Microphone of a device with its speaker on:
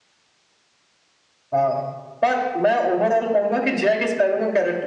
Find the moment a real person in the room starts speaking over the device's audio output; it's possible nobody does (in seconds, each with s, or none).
none